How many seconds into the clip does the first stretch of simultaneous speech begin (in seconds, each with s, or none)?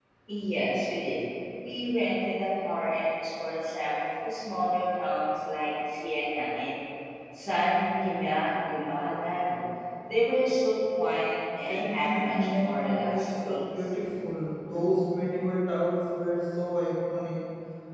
11.7 s